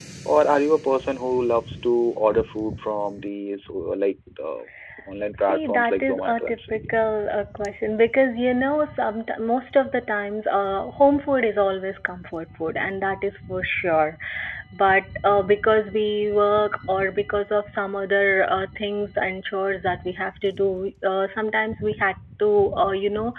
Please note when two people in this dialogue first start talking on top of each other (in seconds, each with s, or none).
5.3 s